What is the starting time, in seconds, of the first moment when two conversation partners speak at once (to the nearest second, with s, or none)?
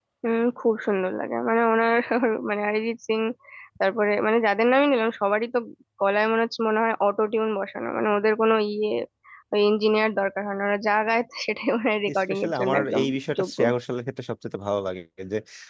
12 s